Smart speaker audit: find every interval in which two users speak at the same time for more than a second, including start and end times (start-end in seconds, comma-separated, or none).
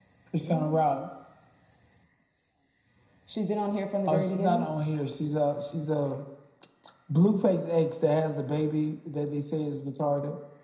none